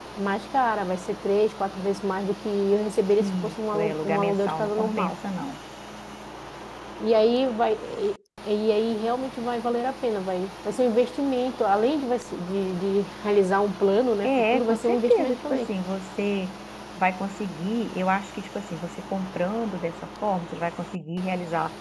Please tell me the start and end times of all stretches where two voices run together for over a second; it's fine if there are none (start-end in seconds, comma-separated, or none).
3.2-5.1, 14.2-15.7